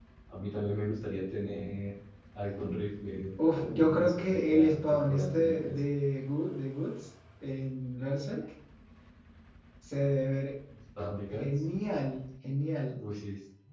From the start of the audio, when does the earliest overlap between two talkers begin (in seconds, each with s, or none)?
3.5 s